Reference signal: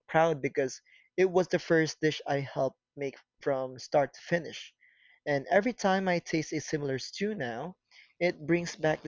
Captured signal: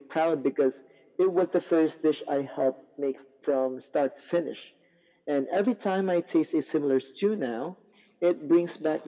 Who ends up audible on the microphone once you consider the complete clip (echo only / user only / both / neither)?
echo only